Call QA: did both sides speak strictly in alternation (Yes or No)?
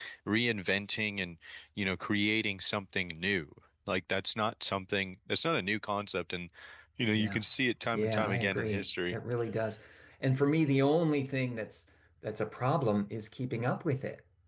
No